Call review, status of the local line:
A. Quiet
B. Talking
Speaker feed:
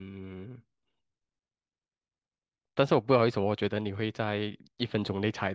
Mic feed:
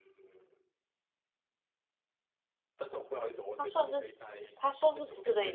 B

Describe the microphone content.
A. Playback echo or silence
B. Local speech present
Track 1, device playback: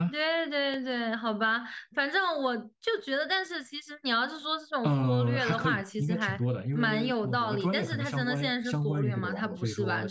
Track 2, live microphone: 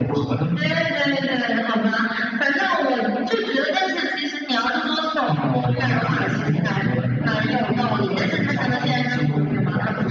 A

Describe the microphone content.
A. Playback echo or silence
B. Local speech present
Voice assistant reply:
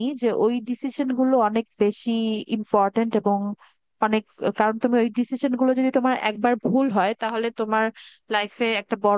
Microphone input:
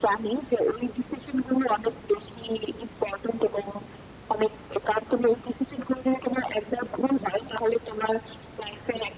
A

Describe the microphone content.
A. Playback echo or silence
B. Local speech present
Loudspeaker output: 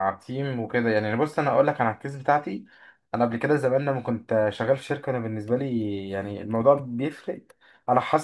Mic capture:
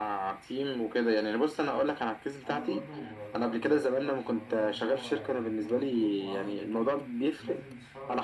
B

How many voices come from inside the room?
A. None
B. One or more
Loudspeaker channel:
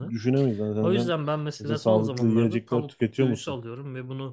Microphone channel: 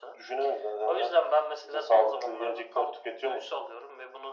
A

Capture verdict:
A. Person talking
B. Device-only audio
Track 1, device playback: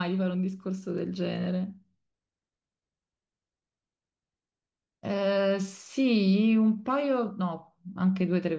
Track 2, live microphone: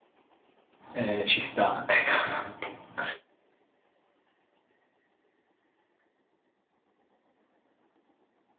A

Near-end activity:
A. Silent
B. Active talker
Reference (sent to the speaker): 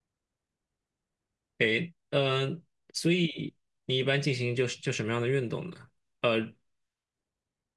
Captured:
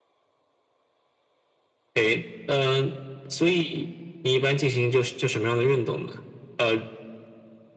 A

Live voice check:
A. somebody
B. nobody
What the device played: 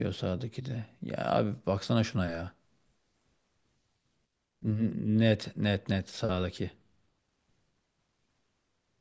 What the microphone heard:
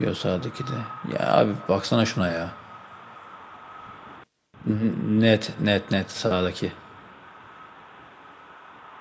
B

